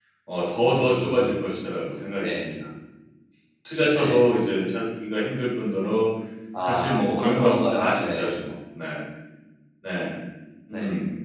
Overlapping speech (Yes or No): Yes